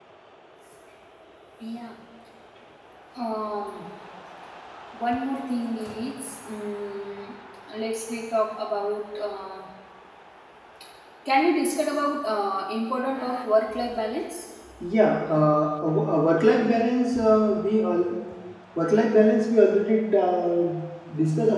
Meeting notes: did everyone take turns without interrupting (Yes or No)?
Yes